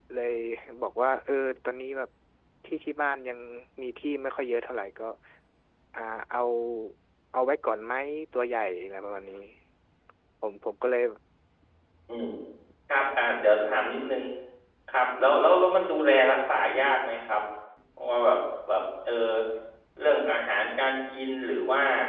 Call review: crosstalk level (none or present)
none